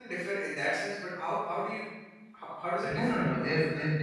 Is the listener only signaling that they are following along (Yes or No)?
No